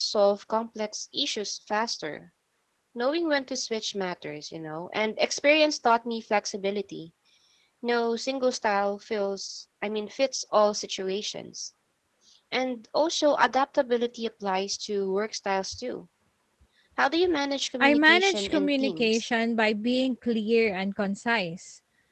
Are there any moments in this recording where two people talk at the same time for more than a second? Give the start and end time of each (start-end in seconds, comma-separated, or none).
17.8-19.3